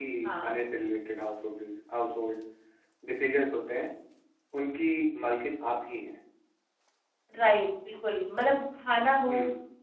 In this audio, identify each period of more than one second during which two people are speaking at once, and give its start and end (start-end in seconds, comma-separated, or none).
none